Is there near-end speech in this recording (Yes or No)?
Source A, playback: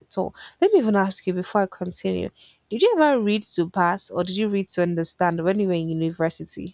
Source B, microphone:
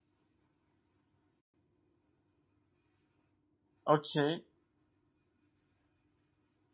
Yes